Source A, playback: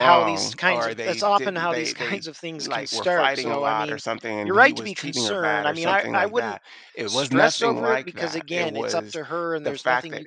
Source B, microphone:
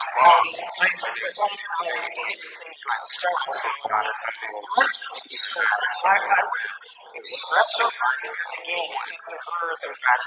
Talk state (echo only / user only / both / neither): echo only